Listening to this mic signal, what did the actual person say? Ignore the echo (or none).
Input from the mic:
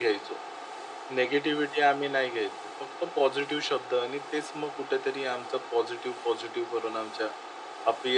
none